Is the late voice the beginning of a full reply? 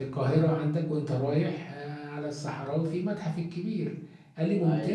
No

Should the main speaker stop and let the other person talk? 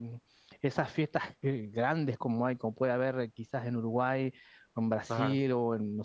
No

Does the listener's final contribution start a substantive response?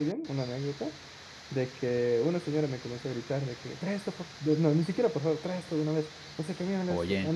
No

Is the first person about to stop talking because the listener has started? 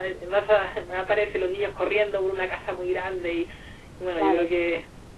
No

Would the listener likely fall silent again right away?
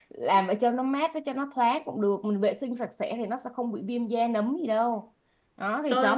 Yes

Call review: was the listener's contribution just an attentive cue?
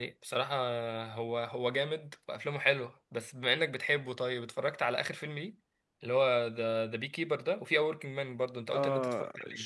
No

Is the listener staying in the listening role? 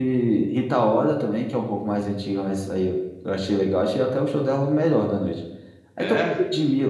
Yes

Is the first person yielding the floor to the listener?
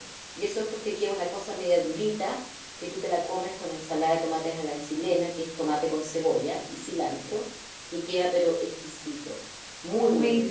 Yes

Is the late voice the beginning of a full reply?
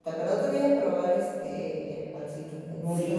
Yes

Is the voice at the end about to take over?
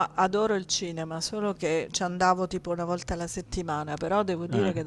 No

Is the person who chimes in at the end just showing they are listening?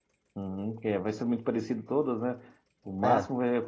Yes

